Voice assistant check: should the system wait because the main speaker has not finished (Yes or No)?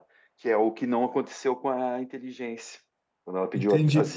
No